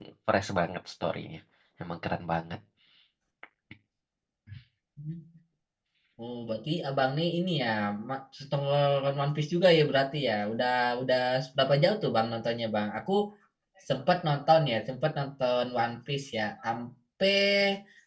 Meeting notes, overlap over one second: none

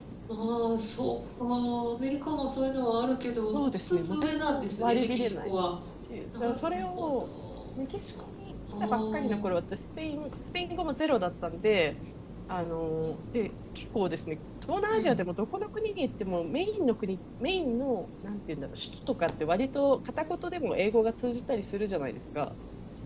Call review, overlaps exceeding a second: present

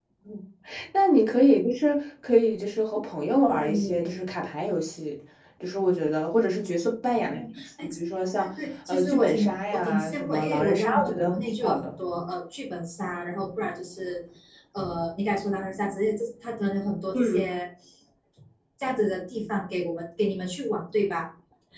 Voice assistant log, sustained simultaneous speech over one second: present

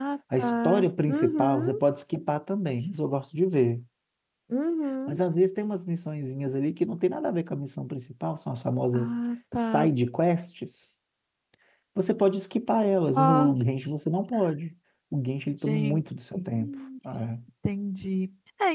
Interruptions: present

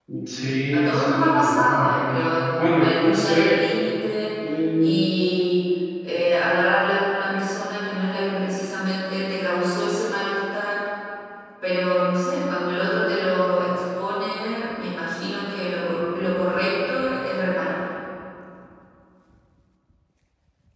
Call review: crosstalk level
present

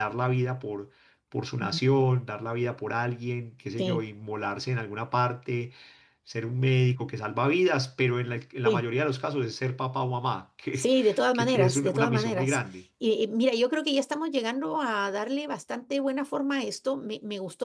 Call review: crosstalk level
present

